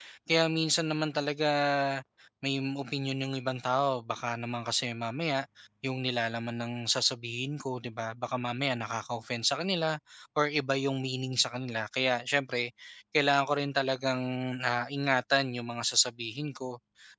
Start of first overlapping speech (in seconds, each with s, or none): none